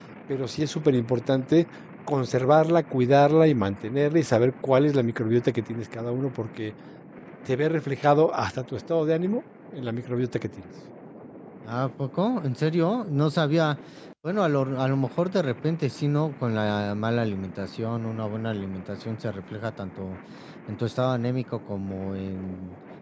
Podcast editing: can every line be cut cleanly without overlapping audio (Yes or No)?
Yes